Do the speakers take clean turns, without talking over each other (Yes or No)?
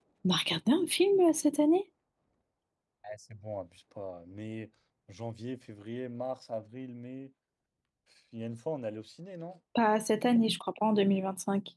Yes